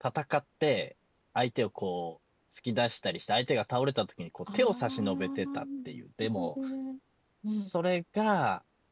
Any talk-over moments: Yes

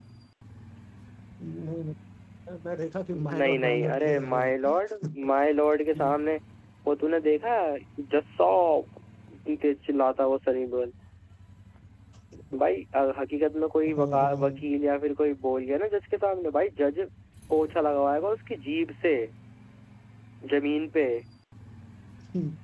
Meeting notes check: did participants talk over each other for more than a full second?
Yes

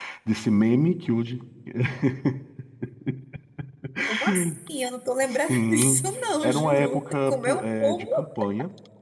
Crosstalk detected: Yes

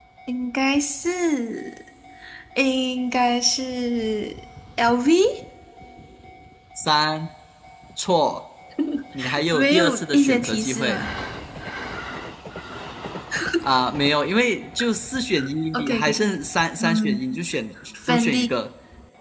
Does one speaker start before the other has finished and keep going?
Yes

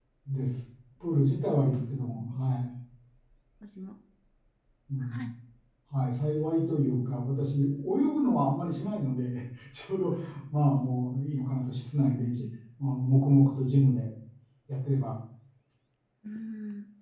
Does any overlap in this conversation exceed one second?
No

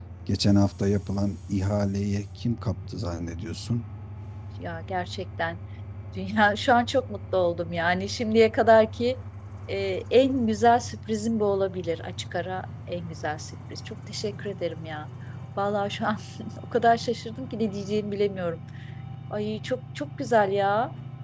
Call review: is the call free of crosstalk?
Yes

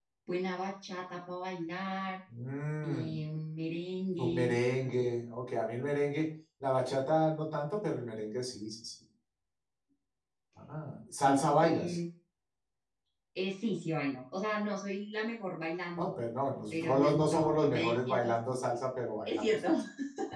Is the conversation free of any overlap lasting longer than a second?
No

